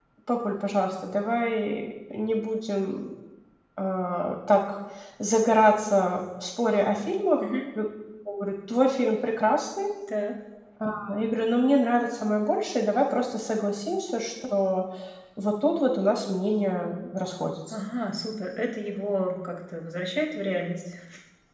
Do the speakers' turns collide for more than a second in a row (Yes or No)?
No